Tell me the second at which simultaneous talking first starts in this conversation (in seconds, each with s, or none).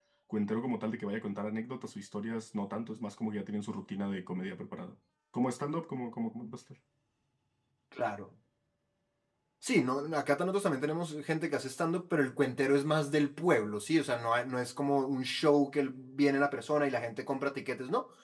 none